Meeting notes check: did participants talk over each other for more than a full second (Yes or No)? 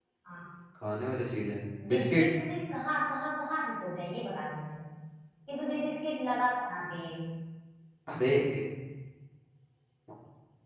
No